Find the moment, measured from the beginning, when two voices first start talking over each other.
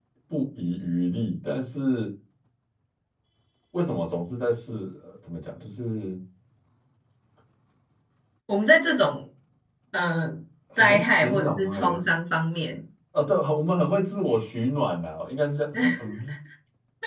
10.7 s

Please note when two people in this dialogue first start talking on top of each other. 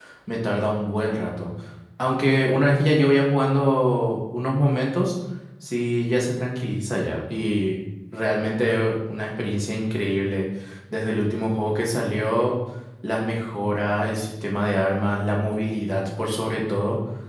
none

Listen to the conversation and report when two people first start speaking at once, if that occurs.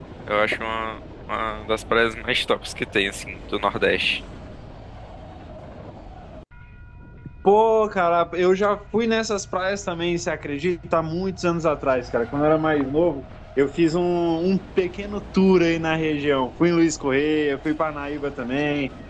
none

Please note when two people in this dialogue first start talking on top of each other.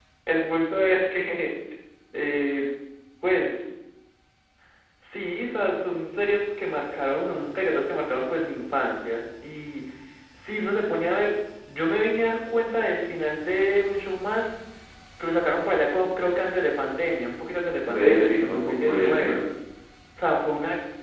17.8 s

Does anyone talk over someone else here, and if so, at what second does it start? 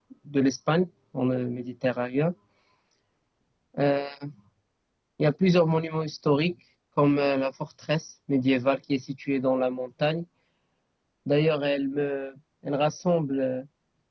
none

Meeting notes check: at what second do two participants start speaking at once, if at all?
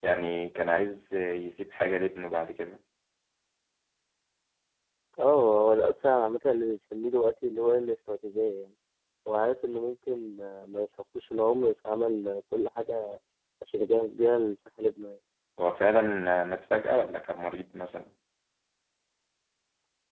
none

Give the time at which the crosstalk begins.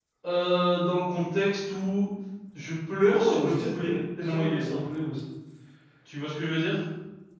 3.1 s

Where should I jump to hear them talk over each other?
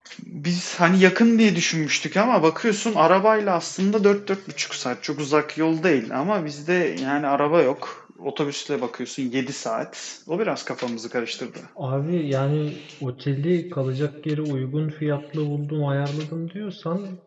none

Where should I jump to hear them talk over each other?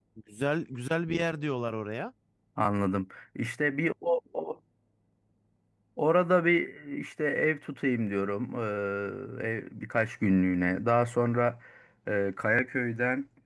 none

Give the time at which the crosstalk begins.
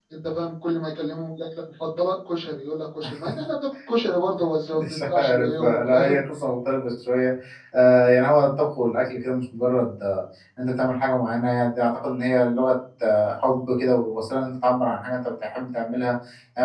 4.7 s

